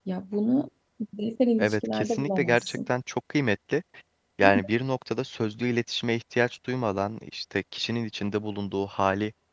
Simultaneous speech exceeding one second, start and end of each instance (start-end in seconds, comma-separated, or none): 1.6-2.9